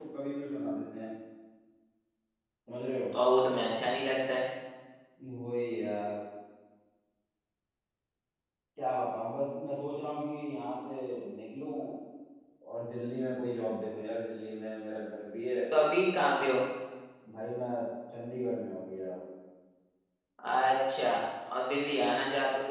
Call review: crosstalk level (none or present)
none